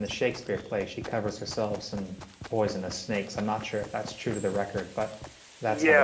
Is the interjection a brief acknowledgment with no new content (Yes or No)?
No